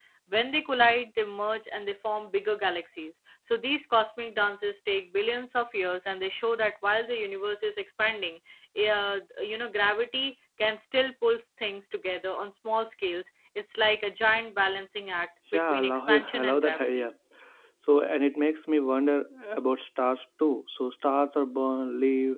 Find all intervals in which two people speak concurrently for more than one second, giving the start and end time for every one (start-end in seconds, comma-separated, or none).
15.5-17.1